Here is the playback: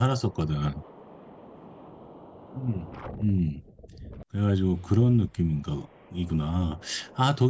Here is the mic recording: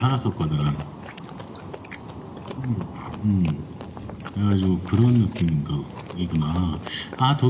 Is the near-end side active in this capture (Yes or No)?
No